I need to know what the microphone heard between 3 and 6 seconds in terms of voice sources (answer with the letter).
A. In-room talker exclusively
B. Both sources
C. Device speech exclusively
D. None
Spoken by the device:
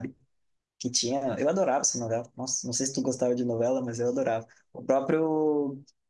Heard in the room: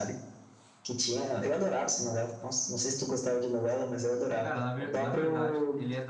B